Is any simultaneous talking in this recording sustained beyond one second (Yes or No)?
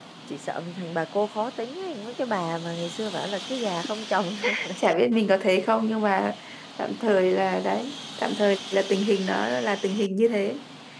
No